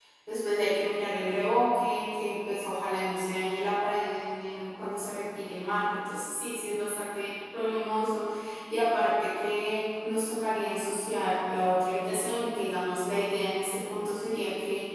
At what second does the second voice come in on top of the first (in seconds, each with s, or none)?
none